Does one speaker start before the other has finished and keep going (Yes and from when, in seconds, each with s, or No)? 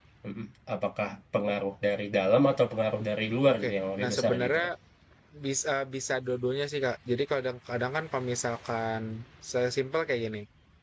Yes, from 3.5 s